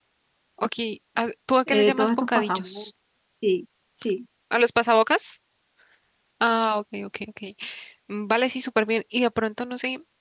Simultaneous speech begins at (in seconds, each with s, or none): 1.7 s